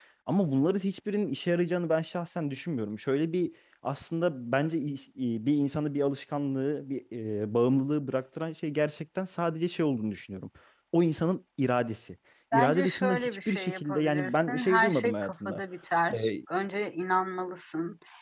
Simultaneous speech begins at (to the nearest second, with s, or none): 13 s